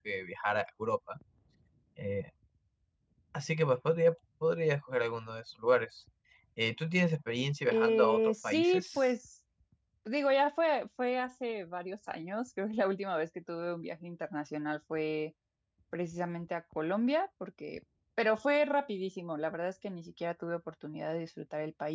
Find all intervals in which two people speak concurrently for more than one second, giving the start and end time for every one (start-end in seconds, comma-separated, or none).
7.7-9.0